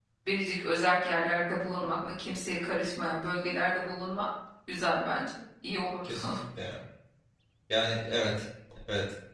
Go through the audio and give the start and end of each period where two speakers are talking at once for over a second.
none

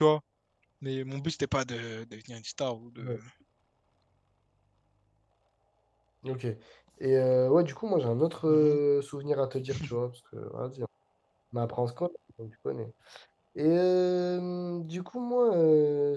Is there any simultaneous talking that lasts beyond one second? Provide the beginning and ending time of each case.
none

